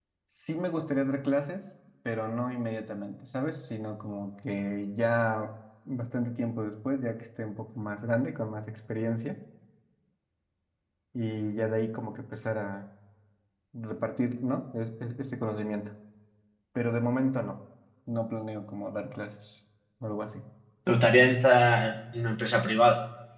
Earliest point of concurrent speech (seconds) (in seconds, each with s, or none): none